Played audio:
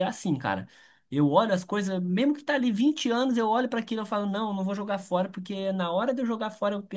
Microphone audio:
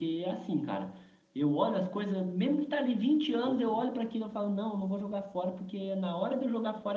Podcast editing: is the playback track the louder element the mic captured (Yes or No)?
Yes